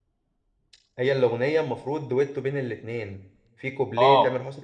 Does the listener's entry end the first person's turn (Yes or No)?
No